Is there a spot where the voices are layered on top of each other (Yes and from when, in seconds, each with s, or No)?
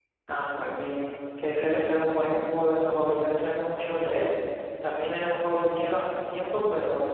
No